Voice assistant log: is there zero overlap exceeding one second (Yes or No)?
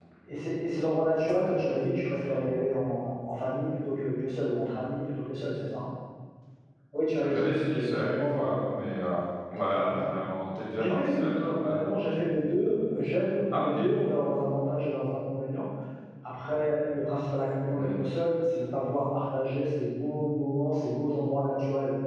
No